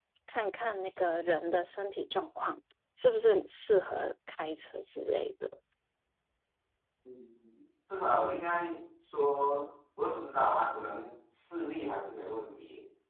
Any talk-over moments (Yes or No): No